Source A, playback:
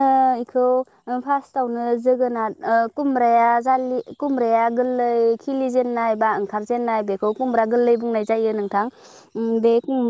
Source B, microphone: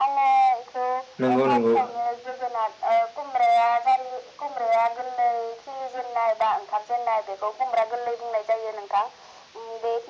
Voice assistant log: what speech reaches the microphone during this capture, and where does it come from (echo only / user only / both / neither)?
both